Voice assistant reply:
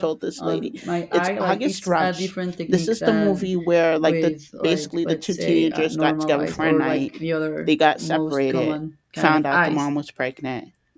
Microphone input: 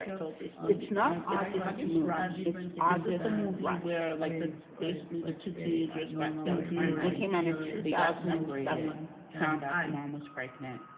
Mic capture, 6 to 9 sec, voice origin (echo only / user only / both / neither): both